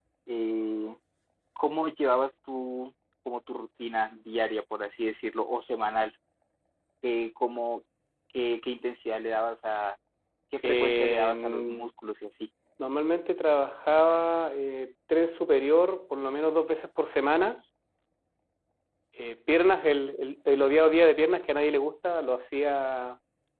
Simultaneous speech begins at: 11 s

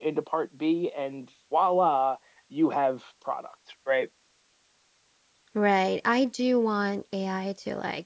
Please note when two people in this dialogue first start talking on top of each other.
none

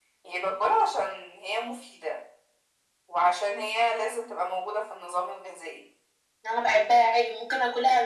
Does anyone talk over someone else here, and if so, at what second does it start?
none

